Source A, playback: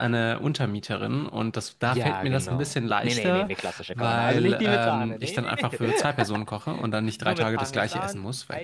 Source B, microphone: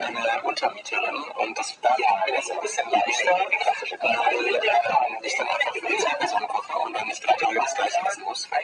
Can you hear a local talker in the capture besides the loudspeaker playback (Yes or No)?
No